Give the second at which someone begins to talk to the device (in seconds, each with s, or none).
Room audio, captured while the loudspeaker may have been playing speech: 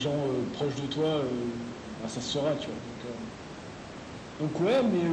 none